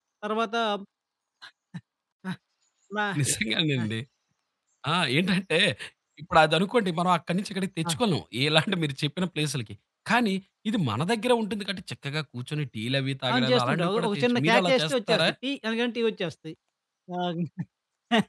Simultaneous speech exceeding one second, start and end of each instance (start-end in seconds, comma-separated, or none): 13.3-15.3